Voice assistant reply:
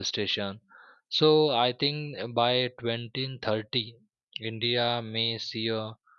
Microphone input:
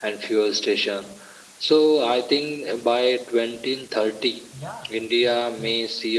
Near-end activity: present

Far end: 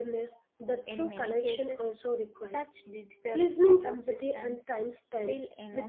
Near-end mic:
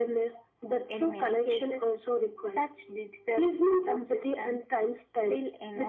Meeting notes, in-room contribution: none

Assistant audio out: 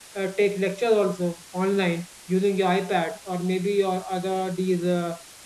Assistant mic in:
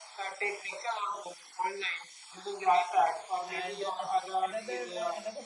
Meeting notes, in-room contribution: present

